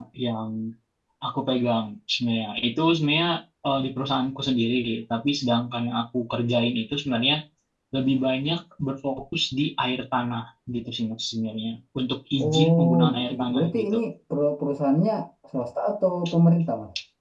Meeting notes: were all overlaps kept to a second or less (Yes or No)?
No